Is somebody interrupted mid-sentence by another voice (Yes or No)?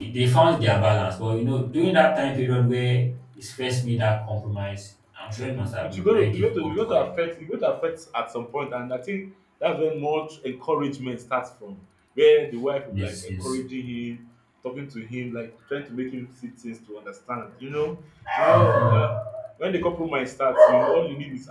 Yes